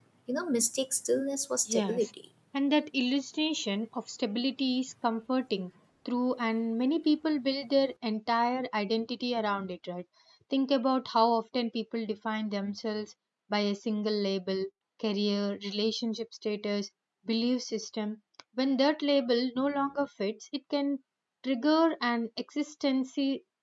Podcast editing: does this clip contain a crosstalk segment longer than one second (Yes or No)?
No